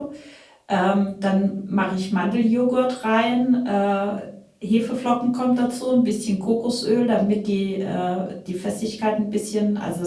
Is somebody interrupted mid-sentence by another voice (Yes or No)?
No